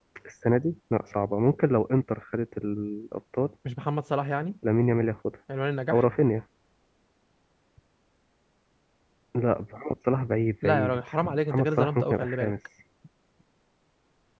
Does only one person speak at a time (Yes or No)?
No